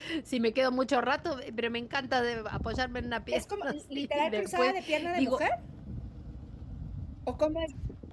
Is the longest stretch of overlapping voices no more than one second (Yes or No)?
No